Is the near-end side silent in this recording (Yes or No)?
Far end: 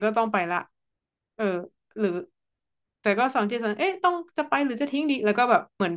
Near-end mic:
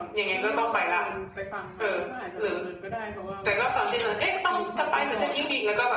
No